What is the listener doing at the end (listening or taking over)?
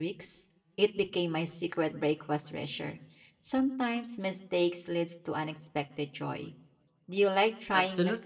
taking over